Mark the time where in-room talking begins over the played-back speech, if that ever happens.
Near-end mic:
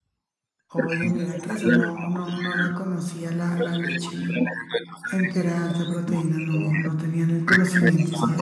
0.7 s

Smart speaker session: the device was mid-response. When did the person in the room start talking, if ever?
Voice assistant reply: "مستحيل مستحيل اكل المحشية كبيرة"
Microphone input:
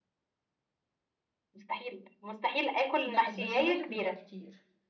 3.0 s

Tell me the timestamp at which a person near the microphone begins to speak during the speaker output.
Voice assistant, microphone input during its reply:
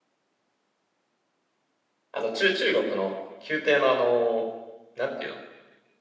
2.1 s

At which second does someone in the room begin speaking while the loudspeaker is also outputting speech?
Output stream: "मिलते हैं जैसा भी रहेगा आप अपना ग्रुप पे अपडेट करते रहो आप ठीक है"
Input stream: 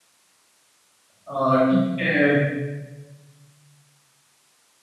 1.2 s

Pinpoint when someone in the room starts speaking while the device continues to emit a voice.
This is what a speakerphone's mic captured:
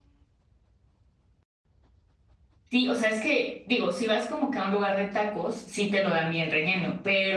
2.7 s

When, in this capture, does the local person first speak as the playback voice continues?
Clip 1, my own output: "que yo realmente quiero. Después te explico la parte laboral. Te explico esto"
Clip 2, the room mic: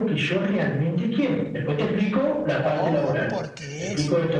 2.6 s

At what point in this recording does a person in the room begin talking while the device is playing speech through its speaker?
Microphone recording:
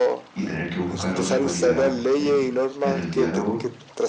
0.3 s

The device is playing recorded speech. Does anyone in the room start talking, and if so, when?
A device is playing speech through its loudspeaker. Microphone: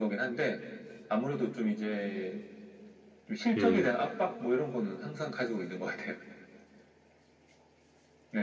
3.6 s

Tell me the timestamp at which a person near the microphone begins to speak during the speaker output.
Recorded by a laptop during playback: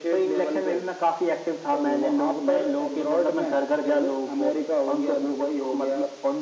none

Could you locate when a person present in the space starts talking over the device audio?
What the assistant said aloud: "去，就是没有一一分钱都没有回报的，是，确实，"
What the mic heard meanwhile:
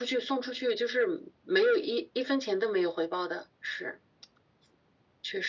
none

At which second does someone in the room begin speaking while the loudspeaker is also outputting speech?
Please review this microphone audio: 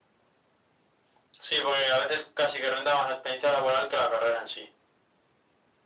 none

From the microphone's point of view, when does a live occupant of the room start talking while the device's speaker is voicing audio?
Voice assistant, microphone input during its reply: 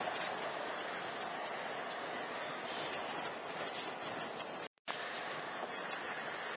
none

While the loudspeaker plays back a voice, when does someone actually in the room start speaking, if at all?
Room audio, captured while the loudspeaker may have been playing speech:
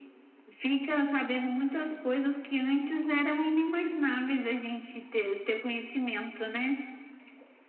none

